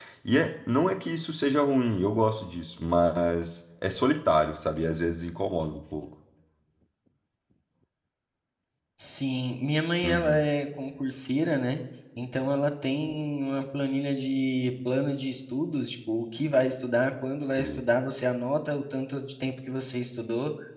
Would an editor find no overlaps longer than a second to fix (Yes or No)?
Yes